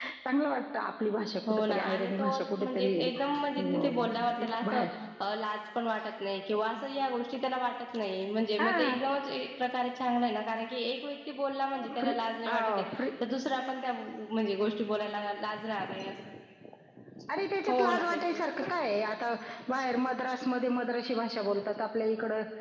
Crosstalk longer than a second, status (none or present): present